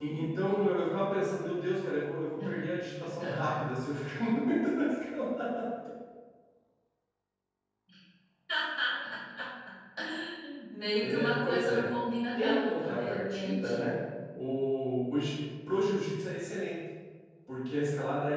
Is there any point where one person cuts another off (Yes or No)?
Yes